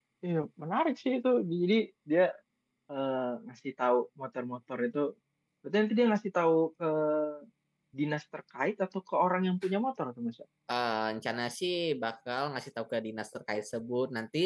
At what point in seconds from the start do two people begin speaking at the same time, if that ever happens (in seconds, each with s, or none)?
none